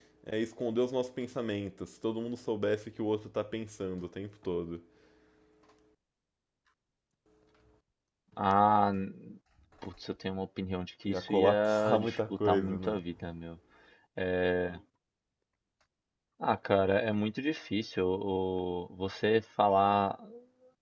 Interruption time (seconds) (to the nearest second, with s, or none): 11 s